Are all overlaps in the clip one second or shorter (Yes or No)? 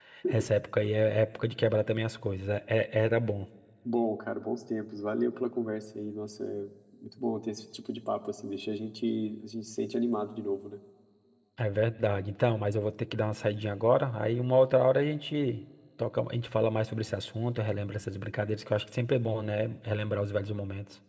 Yes